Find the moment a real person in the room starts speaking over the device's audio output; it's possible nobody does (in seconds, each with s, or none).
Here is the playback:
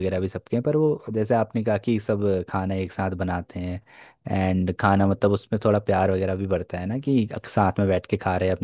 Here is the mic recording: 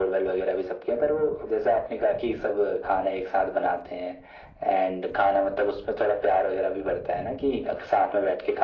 none